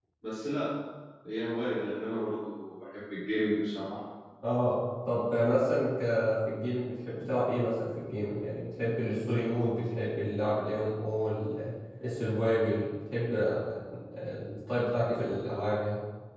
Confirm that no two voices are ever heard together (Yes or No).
Yes